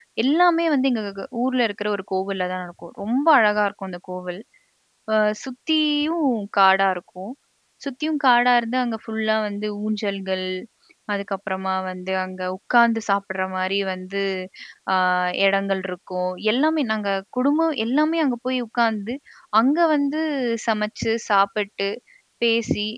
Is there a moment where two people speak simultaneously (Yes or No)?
No